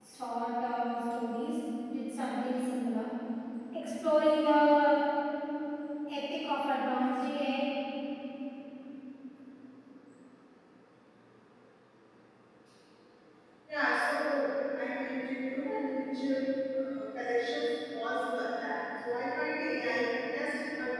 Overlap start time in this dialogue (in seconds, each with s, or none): none